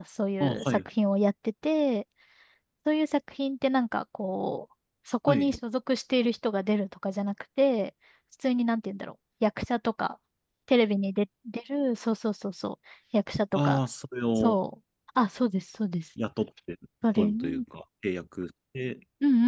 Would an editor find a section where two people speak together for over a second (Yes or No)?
No